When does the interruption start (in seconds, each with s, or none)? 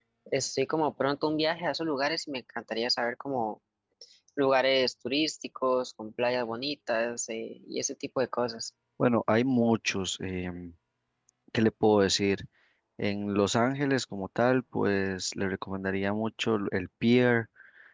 none